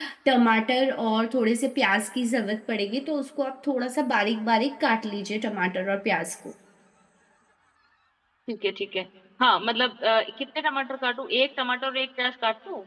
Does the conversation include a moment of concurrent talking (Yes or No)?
No